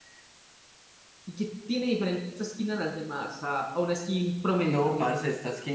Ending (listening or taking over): taking over